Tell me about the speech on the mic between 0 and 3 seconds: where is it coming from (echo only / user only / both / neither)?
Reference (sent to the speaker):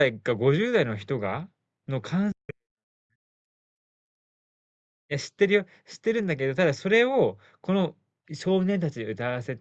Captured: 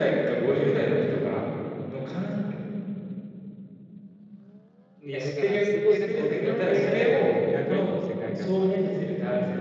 echo only